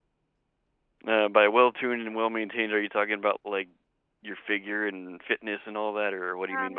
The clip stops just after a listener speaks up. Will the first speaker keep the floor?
No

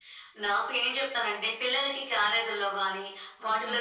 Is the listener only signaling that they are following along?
Yes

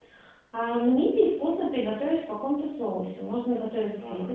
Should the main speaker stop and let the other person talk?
No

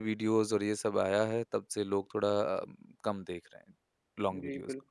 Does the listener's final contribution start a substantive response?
Yes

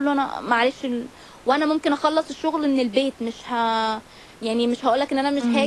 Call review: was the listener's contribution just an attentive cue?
No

